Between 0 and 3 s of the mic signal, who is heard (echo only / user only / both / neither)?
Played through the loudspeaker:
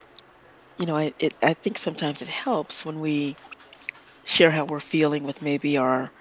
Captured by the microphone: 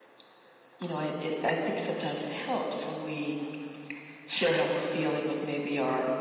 echo only